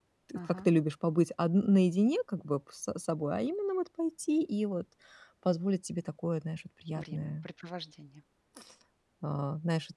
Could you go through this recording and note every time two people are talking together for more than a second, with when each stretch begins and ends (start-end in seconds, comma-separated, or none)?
none